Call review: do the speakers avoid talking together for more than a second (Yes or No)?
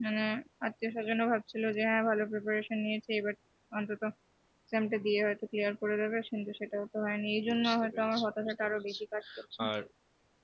No